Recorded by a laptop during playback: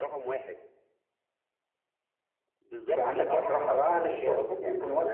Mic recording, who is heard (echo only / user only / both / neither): both